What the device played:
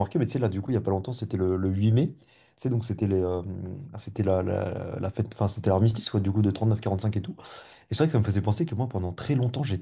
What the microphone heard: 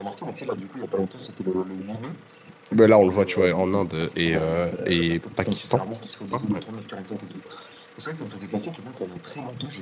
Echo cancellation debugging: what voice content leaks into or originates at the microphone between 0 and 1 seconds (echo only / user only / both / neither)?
echo only